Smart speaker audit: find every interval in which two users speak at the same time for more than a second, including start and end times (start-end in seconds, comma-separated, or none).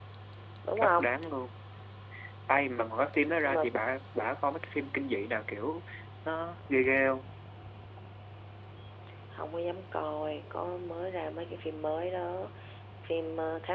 none